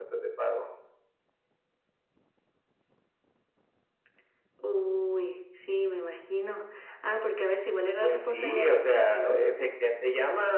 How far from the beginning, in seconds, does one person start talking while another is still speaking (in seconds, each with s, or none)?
8.0 s